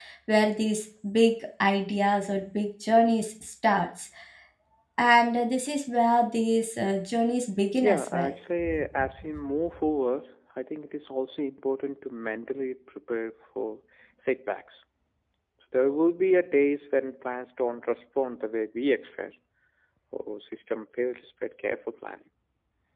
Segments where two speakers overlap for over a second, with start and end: none

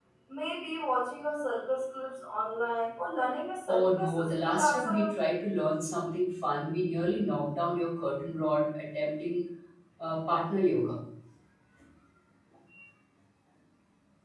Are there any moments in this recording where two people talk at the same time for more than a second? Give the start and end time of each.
3.7-5.0

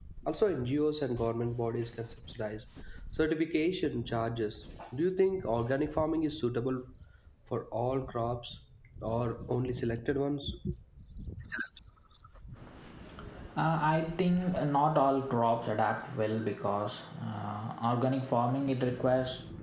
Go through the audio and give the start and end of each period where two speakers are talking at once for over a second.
none

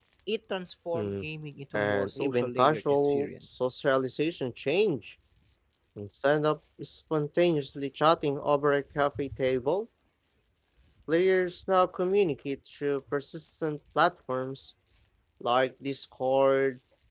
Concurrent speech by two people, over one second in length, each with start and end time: 1.7-3.6

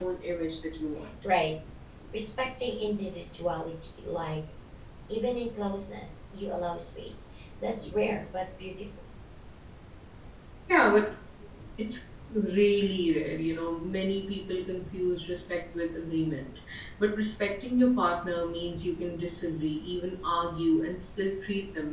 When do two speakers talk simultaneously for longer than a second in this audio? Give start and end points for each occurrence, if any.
none

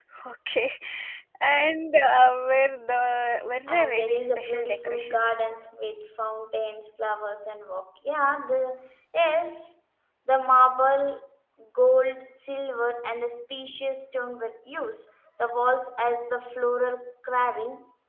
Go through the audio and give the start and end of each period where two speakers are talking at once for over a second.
3.7-5.3

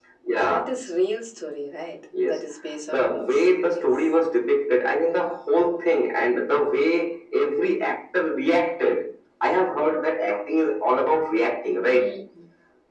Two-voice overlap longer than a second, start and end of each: 2.9-4.1

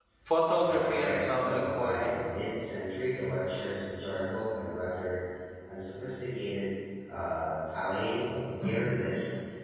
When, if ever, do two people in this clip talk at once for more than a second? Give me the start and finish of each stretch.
0.6-2.2

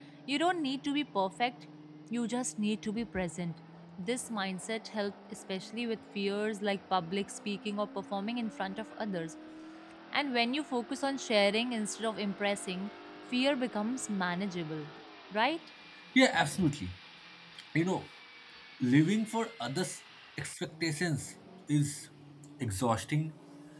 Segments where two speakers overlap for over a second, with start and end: none

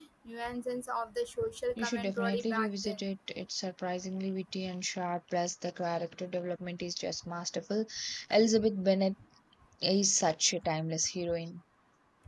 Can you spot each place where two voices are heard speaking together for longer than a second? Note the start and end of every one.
1.8-3.0

